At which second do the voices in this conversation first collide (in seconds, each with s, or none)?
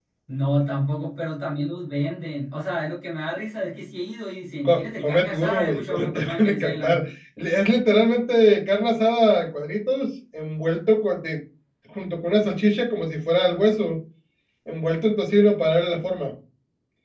4.6 s